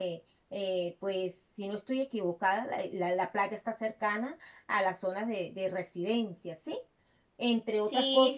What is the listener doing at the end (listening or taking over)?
taking over